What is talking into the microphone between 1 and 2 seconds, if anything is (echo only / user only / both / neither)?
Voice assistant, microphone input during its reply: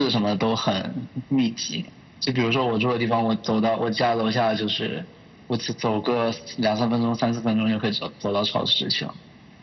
echo only